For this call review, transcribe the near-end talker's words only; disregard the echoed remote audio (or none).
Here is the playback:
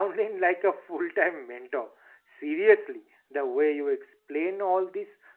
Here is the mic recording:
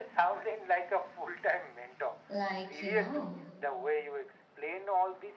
like you know